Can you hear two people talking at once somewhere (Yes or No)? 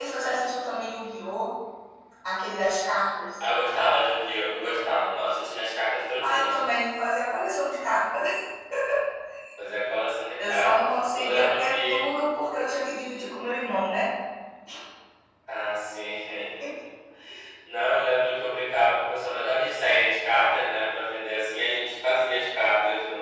Yes